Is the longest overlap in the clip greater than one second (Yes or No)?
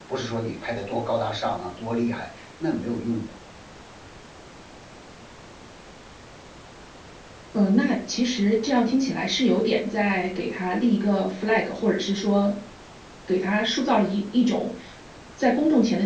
No